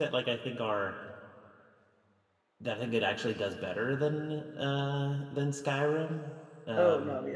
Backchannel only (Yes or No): No